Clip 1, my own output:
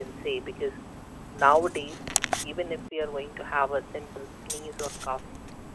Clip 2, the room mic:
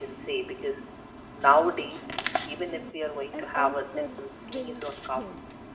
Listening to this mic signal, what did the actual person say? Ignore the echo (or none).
an Oscar winning thing.